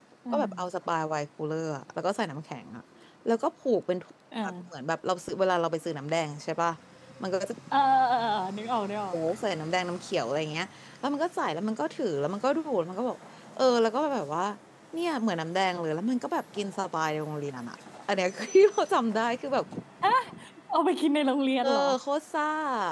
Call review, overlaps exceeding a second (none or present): none